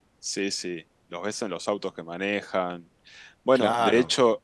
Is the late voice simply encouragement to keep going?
Yes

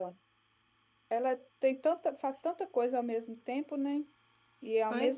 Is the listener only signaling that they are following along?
Yes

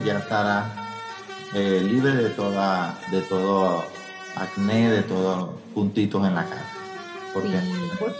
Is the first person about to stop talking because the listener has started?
Yes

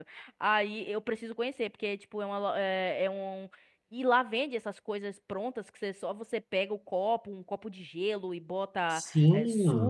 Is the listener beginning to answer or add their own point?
Yes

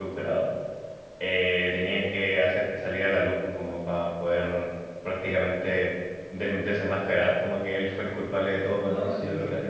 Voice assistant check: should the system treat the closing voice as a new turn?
Yes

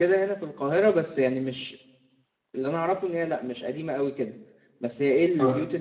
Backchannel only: Yes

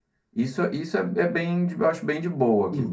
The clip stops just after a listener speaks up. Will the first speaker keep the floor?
No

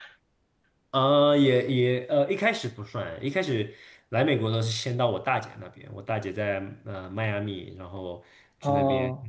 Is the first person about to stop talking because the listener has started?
No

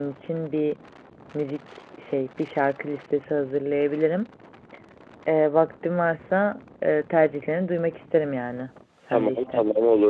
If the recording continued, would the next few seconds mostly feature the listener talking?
Yes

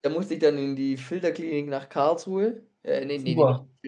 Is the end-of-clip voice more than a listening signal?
No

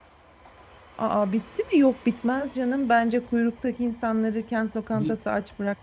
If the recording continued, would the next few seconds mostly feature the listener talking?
No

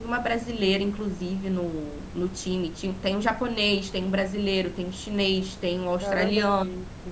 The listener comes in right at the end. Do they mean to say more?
Yes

